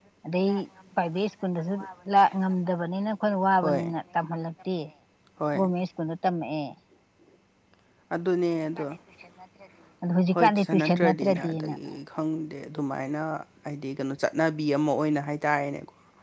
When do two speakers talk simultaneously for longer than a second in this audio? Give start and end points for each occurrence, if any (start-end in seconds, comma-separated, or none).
10.3-11.8